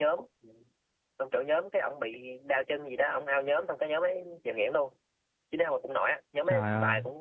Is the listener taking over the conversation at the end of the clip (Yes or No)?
No